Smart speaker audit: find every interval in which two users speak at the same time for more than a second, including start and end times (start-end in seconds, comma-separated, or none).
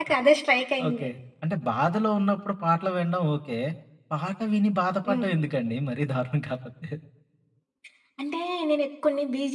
none